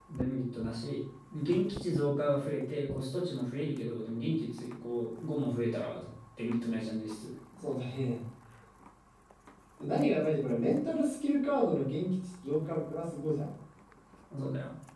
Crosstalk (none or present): none